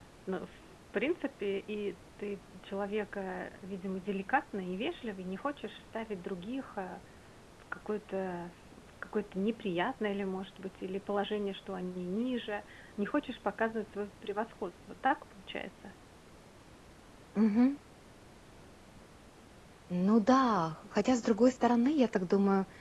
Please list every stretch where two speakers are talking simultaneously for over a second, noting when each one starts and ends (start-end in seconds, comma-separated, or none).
none